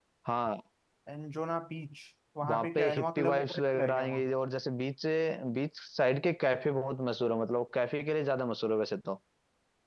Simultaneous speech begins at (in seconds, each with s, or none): 2.4 s